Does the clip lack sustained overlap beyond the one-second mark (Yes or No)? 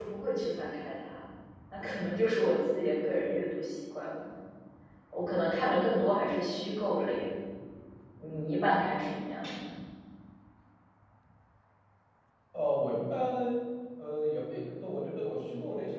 Yes